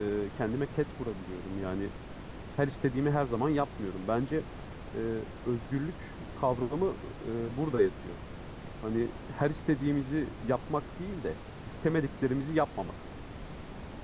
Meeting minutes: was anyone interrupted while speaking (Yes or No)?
No